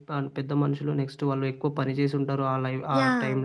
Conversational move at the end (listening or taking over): taking over